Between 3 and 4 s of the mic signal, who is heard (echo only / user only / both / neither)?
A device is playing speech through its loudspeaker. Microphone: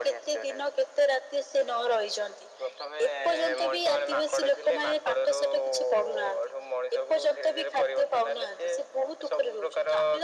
echo only